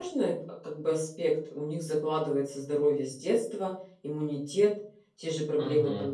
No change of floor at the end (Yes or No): Yes